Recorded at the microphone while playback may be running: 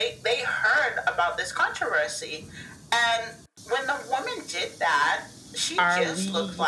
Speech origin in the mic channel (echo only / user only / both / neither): both